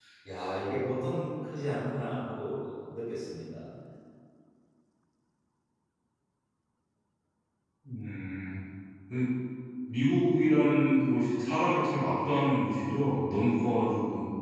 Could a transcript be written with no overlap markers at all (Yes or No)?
Yes